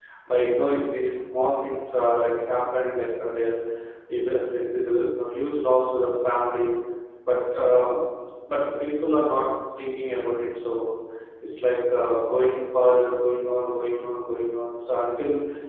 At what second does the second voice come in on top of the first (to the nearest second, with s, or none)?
none